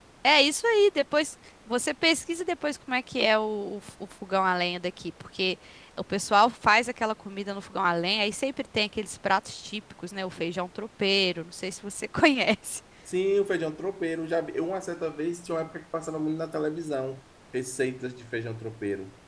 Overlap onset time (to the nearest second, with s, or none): none